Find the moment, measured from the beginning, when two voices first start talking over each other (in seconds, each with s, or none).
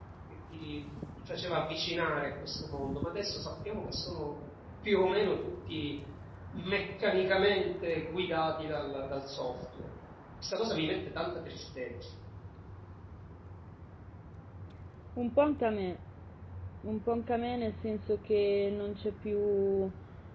none